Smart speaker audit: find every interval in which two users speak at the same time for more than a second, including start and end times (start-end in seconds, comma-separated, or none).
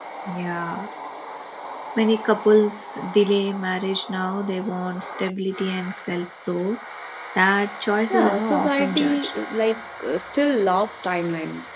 8.1-9.3